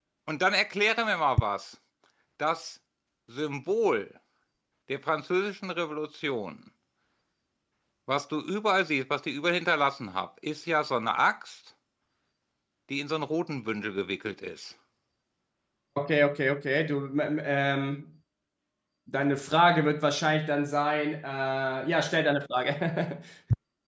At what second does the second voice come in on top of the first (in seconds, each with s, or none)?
none